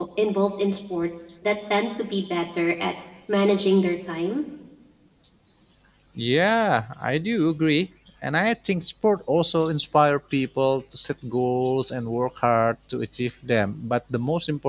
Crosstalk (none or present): none